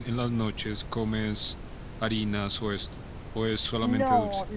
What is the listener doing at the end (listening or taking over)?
taking over